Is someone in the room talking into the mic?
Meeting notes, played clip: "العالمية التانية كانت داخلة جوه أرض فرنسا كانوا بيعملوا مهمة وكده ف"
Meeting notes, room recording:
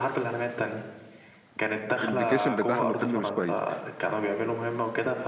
Yes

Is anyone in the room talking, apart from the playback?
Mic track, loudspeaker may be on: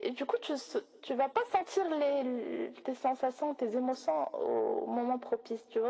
No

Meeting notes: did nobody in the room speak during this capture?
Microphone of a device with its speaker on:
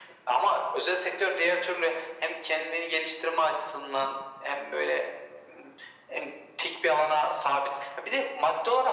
Yes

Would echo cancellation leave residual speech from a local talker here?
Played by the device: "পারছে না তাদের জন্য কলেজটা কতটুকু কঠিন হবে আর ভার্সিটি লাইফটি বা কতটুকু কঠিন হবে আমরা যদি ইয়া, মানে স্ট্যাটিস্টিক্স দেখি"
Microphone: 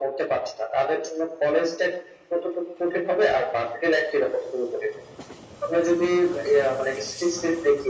No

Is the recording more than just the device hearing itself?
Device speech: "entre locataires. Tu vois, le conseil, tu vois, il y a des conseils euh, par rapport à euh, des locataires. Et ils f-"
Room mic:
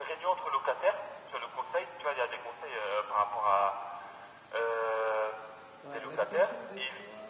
Yes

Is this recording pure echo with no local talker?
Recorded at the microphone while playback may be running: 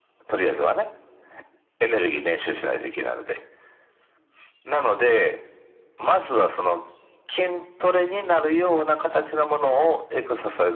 Yes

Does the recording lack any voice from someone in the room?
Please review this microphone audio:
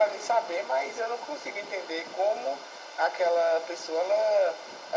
Yes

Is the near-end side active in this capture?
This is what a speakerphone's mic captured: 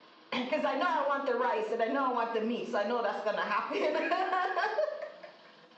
No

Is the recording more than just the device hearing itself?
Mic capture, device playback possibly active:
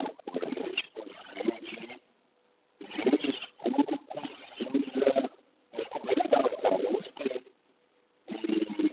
No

